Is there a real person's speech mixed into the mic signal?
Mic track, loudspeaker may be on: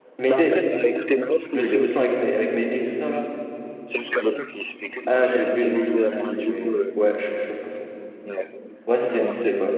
Yes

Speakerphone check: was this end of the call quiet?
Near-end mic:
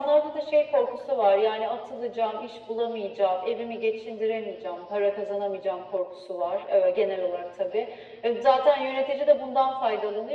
Yes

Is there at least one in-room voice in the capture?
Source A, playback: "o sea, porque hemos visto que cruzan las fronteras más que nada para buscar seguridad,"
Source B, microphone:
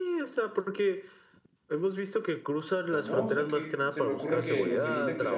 Yes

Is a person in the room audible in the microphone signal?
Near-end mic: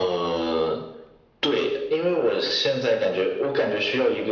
No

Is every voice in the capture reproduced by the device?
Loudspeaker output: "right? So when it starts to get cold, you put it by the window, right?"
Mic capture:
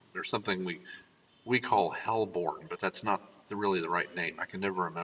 No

